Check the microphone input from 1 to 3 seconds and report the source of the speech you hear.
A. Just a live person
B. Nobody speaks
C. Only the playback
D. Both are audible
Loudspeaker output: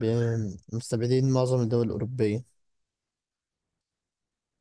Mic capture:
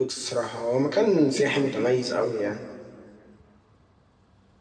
A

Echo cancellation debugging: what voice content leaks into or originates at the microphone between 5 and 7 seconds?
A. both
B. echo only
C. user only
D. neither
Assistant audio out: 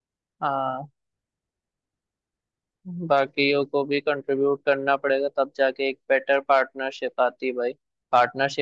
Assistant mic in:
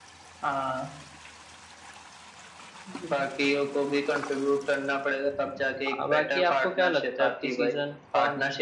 A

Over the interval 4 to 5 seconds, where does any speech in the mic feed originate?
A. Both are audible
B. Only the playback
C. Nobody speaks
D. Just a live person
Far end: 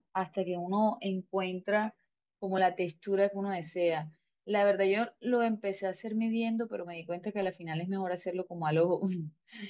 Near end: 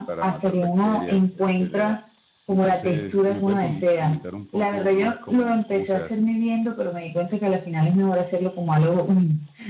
A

